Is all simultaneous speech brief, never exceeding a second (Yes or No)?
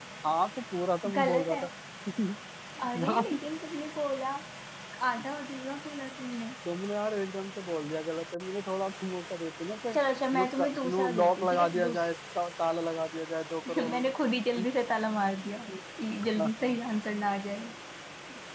No